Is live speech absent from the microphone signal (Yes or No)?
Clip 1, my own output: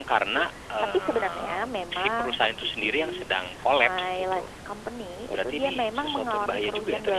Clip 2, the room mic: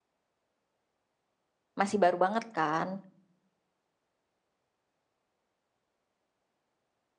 No